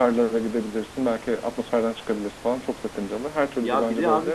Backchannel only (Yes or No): No